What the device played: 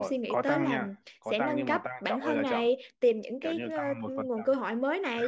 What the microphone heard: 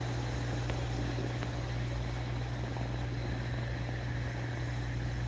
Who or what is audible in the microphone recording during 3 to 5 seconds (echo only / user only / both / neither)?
neither